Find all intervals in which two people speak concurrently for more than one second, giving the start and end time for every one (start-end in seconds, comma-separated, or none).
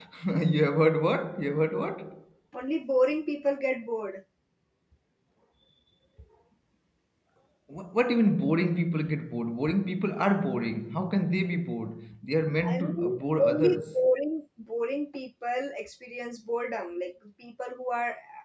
12.6-14.0